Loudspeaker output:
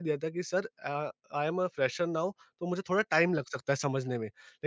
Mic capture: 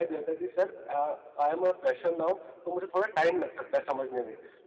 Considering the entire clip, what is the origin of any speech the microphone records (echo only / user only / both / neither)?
echo only